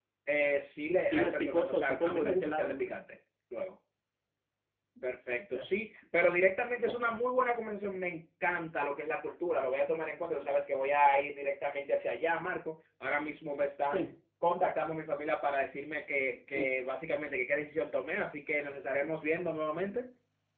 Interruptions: present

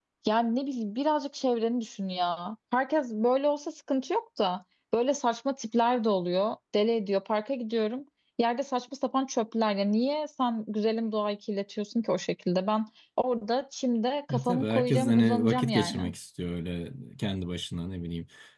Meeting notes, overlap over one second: present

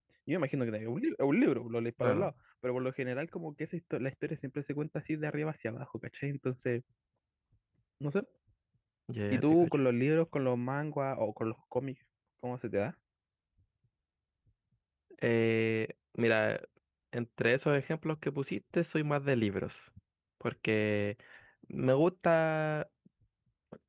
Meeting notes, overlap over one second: none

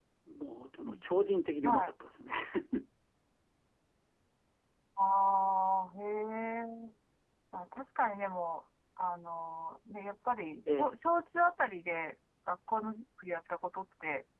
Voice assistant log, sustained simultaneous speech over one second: none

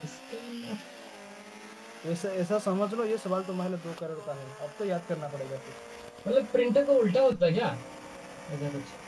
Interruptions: none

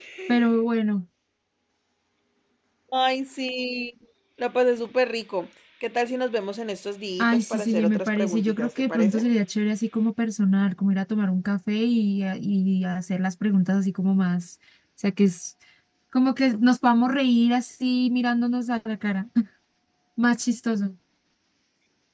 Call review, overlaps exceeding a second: present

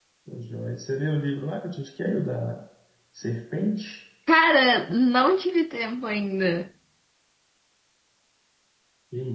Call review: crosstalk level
none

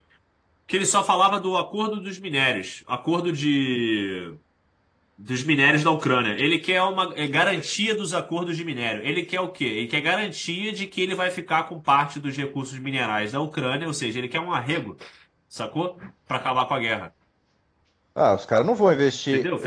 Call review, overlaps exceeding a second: none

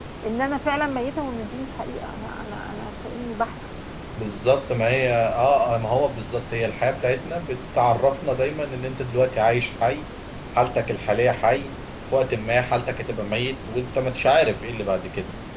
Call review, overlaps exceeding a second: none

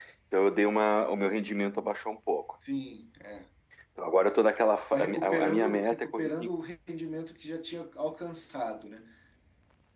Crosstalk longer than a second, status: present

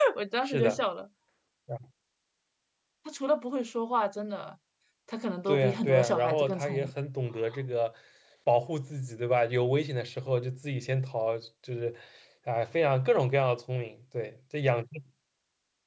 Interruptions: present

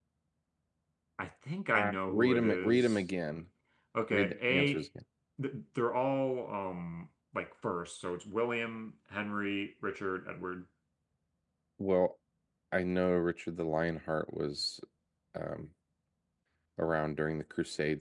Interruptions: present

